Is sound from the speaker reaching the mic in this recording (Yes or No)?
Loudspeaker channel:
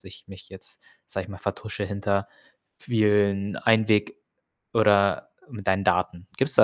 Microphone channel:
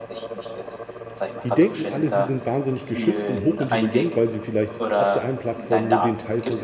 Yes